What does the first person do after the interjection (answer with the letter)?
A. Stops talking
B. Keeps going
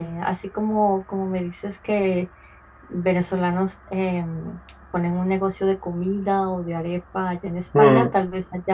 B